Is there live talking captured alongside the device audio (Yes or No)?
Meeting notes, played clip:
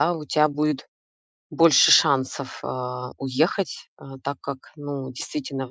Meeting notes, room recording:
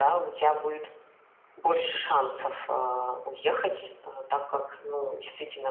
No